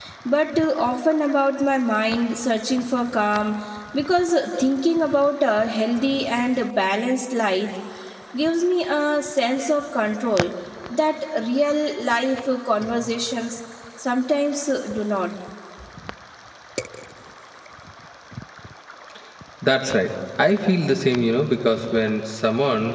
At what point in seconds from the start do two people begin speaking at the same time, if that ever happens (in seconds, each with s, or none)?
none